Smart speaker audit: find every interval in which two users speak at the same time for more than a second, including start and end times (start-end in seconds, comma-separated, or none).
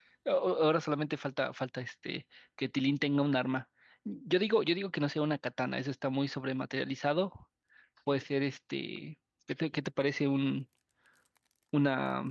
none